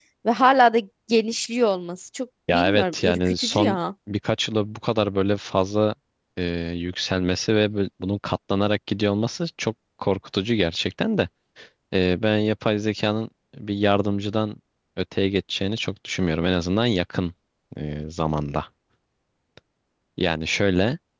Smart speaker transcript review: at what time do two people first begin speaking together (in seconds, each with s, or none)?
2.5 s